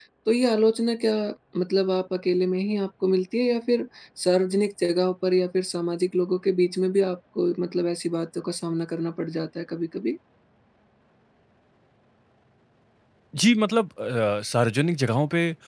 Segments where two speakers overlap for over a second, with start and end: none

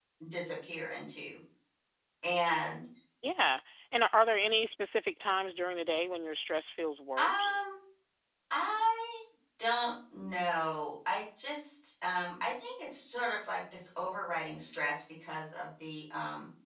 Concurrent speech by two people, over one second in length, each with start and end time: none

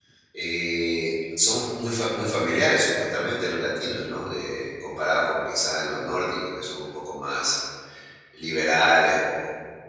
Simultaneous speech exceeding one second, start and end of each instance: none

